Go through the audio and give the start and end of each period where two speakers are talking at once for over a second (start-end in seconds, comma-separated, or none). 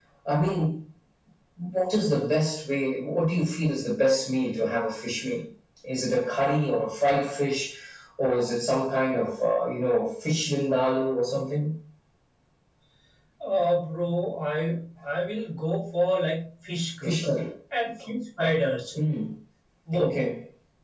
none